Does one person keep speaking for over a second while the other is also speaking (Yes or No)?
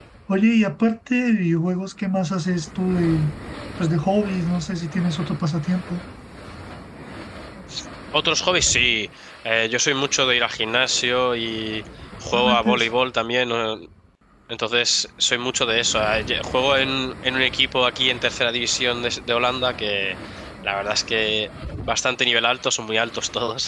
No